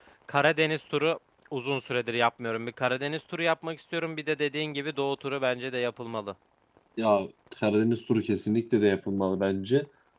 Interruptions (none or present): none